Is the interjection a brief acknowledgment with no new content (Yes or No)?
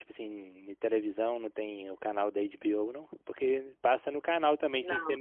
Yes